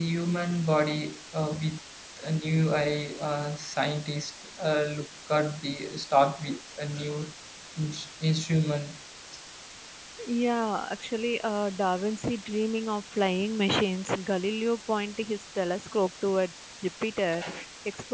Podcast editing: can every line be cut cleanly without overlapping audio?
Yes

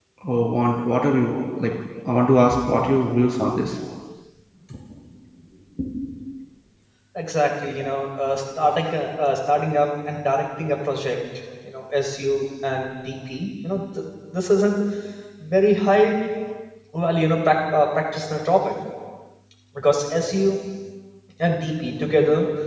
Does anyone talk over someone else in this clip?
No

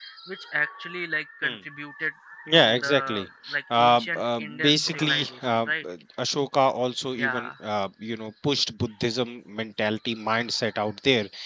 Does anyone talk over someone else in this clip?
Yes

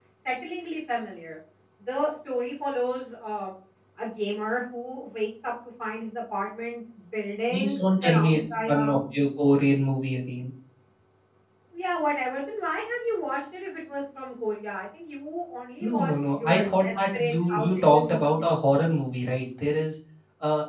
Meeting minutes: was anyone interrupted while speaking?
Yes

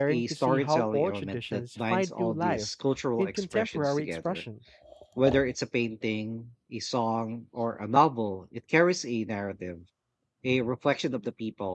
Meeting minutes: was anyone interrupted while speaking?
Yes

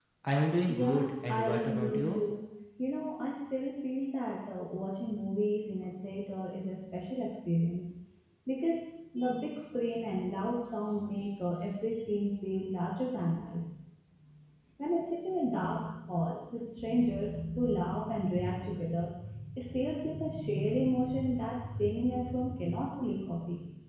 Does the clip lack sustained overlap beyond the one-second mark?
No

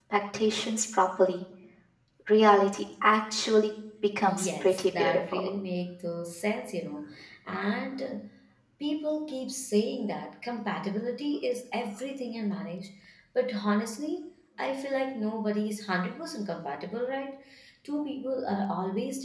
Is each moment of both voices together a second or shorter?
No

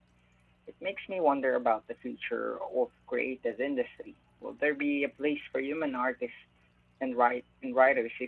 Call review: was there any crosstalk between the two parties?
No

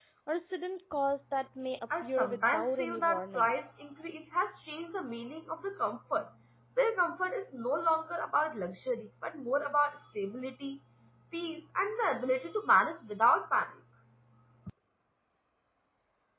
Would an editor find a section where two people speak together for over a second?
Yes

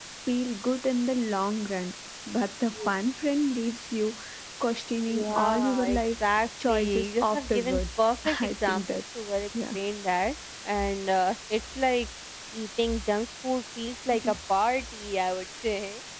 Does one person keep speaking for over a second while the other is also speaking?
Yes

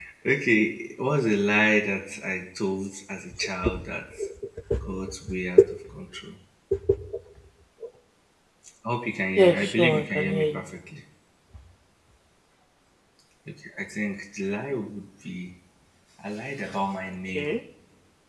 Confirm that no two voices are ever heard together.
No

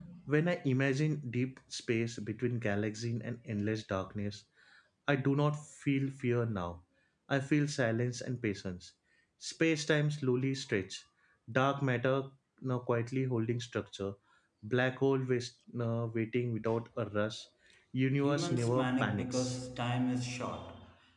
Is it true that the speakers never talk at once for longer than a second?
No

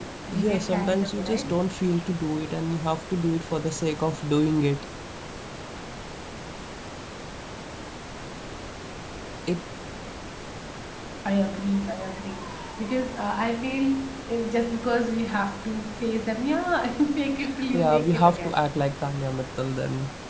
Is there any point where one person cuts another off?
Yes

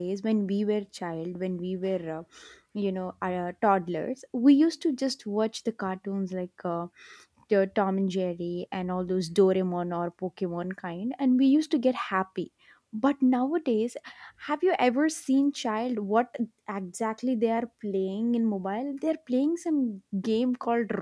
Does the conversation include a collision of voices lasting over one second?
No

